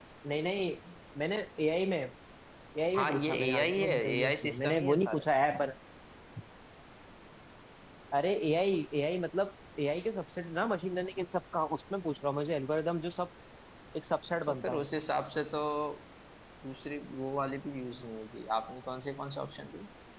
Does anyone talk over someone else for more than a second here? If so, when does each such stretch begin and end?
3.0-5.2

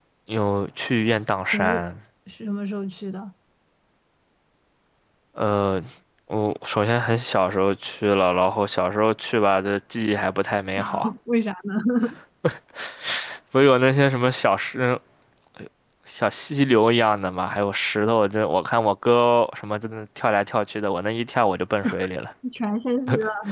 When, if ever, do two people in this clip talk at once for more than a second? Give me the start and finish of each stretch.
none

